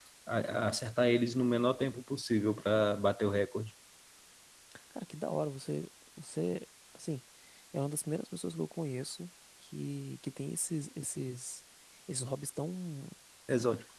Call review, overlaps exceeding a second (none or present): none